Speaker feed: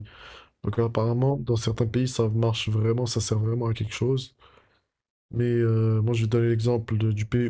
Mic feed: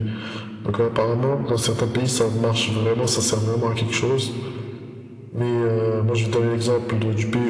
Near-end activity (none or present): none